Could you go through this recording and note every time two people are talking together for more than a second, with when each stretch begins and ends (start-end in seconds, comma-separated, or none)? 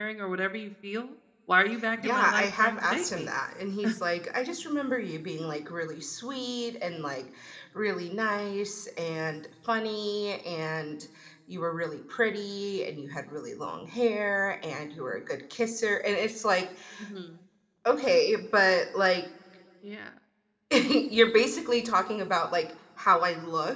2.0-3.3